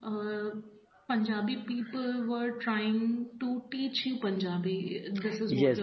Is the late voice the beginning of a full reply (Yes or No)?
Yes